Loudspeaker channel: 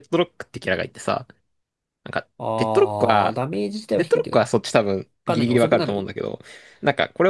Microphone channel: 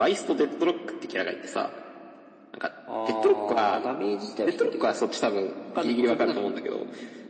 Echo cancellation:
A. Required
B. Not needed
A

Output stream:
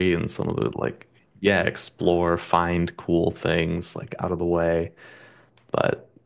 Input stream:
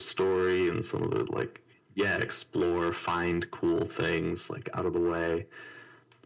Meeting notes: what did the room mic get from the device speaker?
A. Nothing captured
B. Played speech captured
B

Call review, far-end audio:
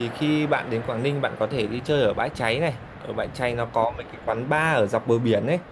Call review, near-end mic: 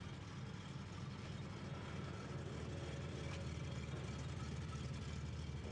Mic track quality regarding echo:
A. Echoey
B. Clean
B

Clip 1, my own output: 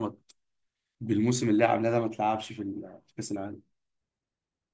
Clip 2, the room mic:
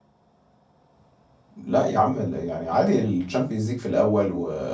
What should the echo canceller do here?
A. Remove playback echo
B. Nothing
B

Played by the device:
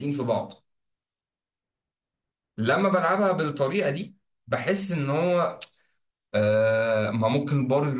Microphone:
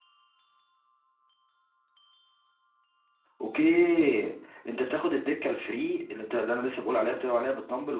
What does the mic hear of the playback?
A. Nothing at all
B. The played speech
A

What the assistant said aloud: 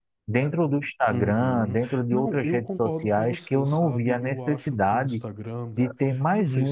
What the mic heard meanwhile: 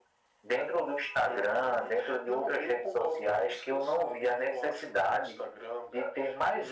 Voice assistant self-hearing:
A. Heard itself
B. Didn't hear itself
A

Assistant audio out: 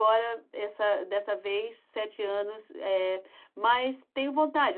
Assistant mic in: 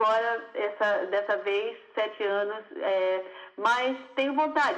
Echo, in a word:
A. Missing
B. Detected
B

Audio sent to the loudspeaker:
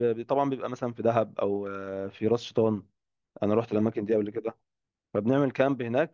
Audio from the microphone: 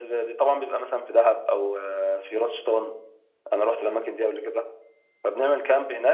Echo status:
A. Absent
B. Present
B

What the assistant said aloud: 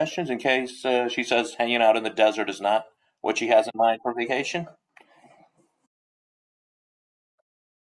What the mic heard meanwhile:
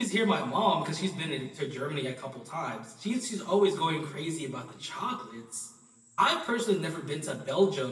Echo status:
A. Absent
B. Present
A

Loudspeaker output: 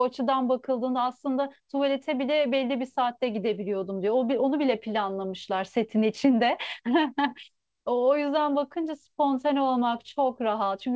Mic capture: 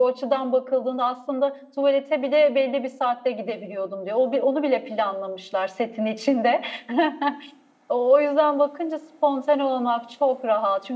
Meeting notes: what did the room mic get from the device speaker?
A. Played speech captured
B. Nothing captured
A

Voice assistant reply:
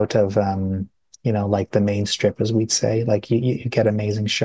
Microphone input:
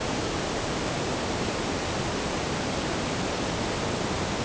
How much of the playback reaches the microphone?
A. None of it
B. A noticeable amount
A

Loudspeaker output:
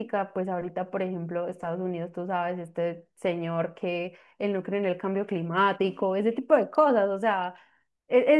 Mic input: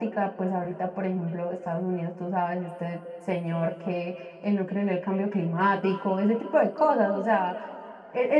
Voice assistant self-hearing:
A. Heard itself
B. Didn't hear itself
A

